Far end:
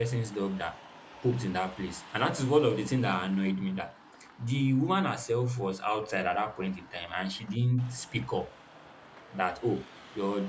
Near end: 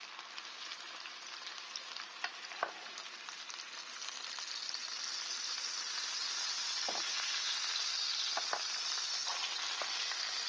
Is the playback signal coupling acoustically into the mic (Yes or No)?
No